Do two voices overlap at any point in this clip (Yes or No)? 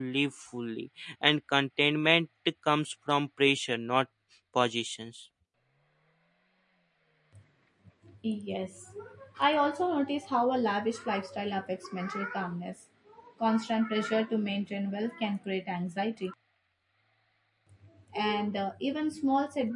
No